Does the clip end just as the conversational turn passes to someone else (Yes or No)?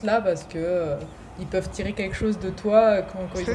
No